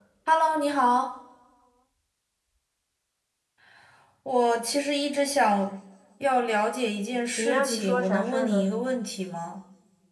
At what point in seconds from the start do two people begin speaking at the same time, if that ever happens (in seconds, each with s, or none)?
7.3 s